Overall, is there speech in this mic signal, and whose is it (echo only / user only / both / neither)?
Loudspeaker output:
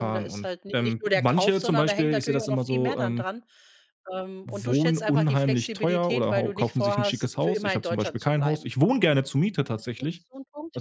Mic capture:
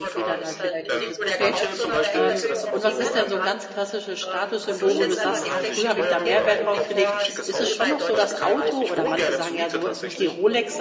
both